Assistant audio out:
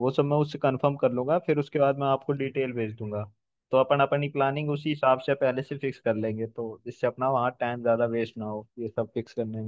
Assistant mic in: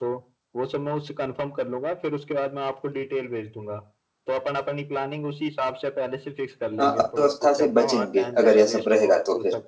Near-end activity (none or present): present